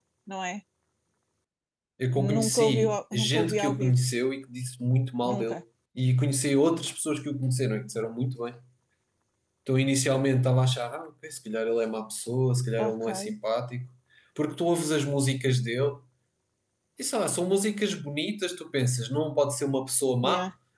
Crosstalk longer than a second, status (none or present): present